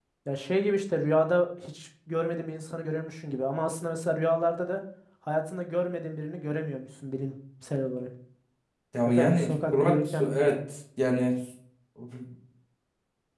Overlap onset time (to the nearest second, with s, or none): 9 s